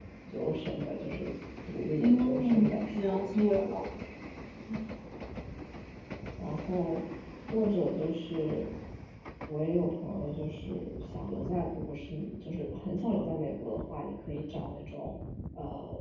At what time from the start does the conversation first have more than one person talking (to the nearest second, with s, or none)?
2 s